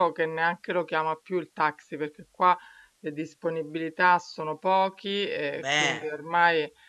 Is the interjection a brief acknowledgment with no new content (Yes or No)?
Yes